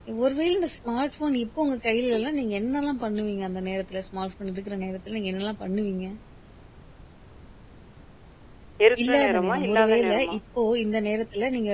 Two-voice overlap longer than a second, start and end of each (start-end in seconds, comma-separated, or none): 9.1-10.4